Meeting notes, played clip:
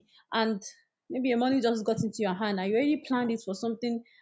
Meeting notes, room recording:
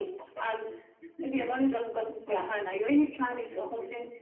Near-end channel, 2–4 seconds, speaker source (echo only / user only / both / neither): both